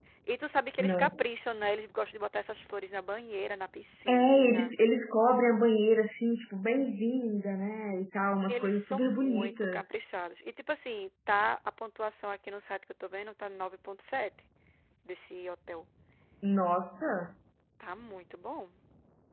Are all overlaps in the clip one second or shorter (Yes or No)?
No